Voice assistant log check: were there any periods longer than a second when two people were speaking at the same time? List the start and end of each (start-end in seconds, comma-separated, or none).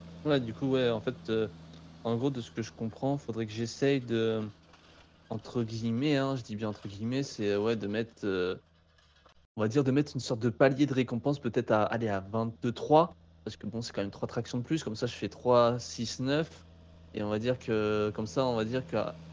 none